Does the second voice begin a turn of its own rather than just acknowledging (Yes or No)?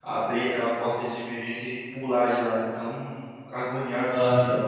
Yes